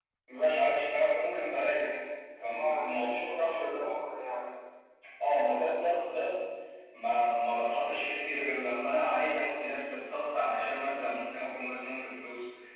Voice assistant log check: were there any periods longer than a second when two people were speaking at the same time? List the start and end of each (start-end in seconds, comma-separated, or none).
2.5-3.9